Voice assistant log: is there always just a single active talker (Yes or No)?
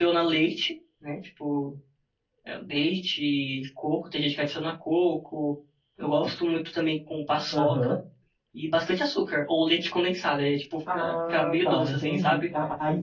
No